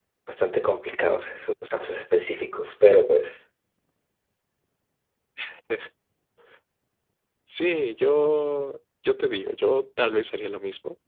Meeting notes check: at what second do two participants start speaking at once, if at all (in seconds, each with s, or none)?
none